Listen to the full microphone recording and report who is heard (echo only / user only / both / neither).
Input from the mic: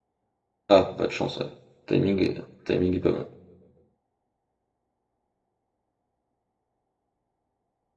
user only